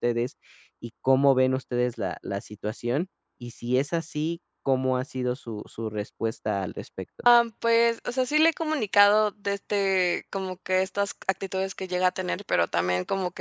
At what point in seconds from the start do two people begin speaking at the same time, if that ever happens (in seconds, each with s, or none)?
none